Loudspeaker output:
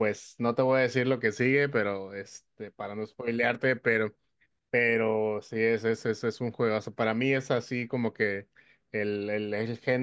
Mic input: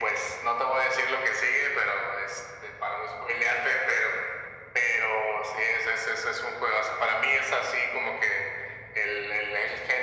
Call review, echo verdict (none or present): present